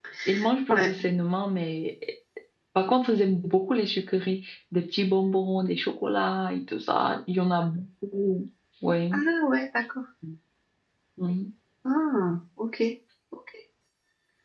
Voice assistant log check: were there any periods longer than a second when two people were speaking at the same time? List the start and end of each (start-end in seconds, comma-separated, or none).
none